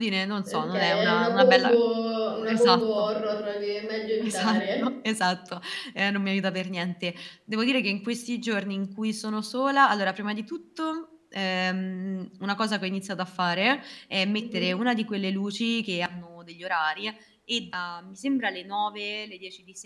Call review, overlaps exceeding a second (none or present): present